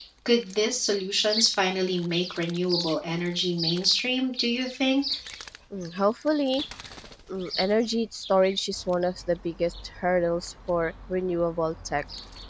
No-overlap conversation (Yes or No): Yes